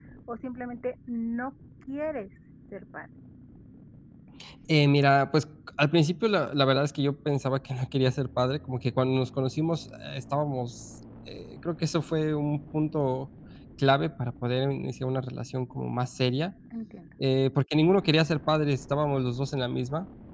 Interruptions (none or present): none